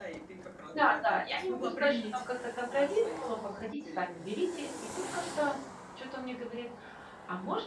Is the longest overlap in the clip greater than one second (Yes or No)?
Yes